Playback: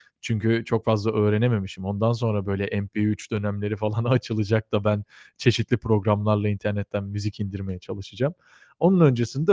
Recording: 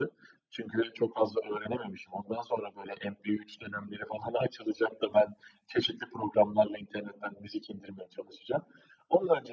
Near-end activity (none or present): none